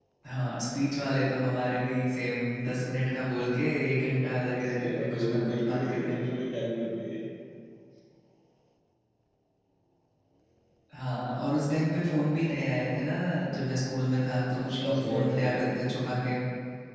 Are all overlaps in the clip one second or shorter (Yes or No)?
No